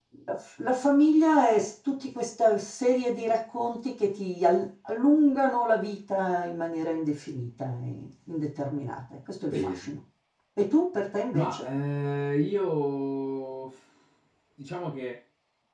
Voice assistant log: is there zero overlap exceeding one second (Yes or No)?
Yes